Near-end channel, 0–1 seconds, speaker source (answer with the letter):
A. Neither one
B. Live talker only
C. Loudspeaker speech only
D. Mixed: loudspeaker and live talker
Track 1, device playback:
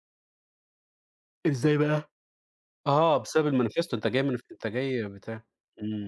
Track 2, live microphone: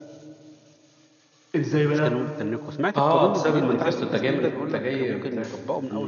A